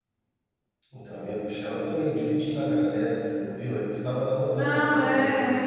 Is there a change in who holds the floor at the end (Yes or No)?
Yes